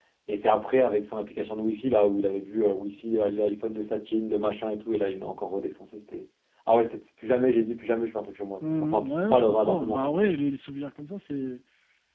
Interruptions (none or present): present